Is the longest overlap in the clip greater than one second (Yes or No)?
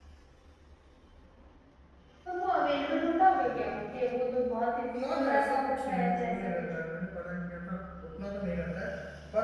Yes